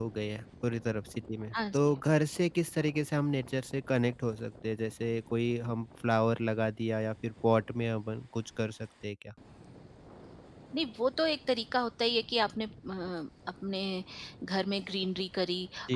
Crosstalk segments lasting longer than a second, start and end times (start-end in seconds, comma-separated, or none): none